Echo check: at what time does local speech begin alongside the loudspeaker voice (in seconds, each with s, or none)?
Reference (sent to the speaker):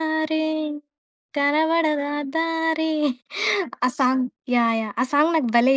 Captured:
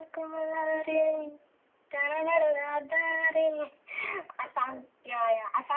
none